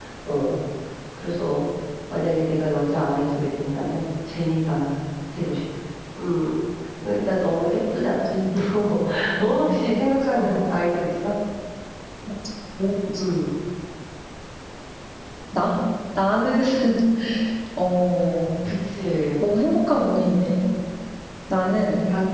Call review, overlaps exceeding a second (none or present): none